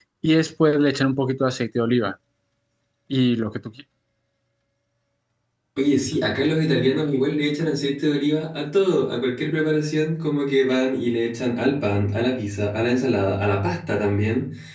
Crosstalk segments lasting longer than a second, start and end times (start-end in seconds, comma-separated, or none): none